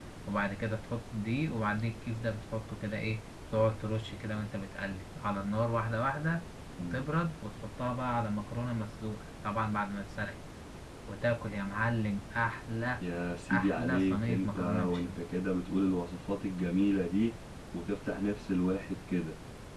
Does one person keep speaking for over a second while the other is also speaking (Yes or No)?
Yes